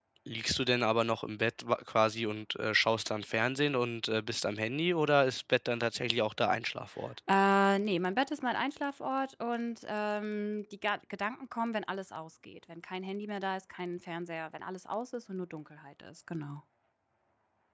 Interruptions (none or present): none